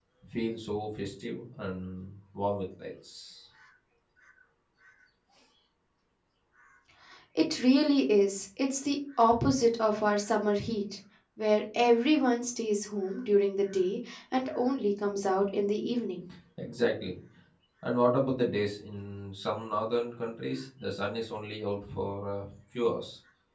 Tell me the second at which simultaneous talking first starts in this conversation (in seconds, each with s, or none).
none